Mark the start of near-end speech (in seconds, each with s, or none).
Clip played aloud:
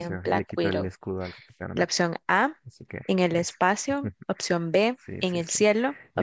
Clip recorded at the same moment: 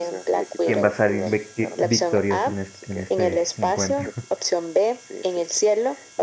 0.6 s